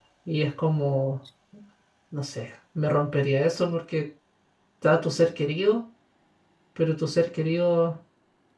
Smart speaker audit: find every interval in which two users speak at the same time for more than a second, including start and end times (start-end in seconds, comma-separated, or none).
none